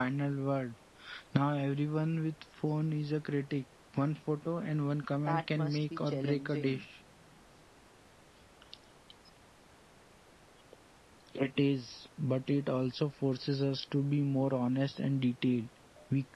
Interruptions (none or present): present